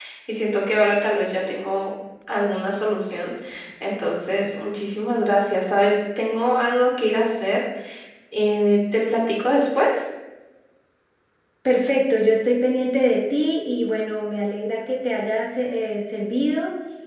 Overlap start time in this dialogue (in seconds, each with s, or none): none